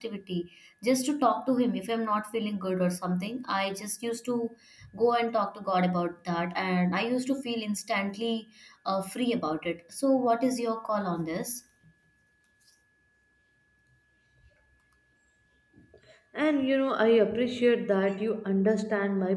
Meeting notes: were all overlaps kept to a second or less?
Yes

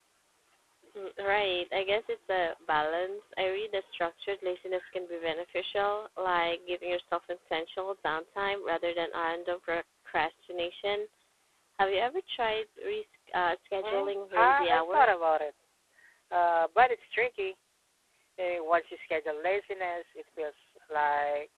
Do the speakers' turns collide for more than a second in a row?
Yes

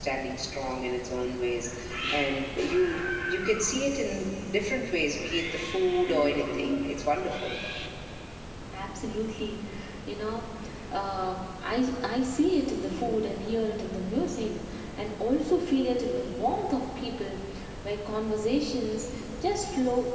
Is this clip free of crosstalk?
Yes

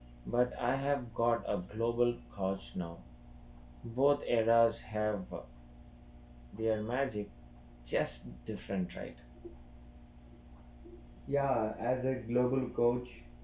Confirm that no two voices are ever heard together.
Yes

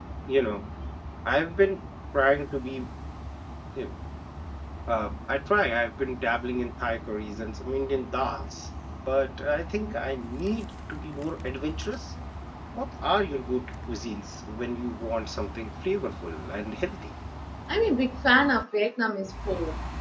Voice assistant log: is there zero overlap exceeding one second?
Yes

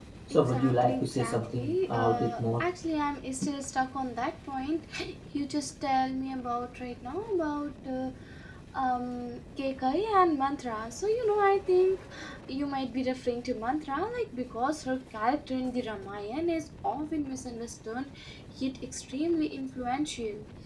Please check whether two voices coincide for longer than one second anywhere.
Yes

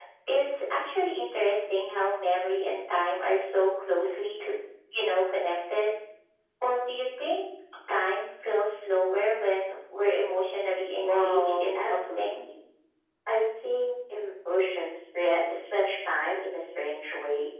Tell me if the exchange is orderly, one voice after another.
No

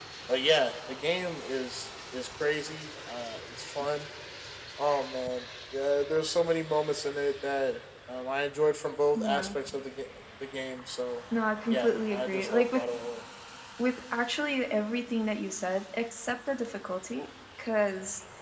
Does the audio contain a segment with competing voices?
Yes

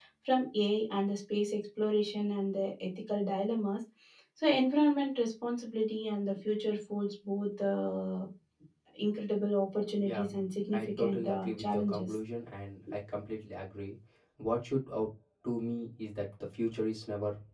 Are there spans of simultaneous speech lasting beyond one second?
Yes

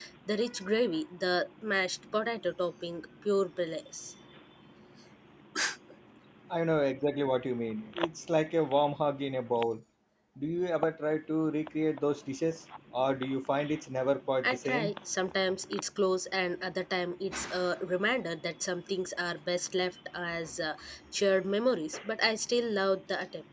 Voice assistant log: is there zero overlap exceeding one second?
Yes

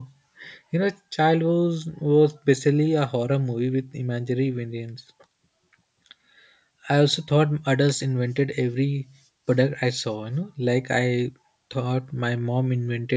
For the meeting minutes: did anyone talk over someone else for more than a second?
No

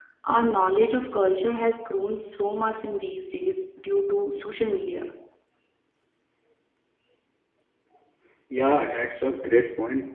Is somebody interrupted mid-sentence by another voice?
No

